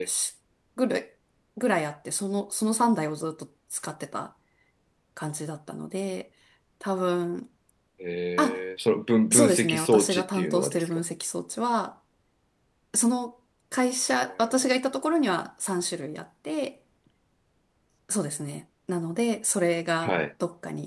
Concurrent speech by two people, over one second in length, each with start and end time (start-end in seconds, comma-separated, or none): 9.3-10.9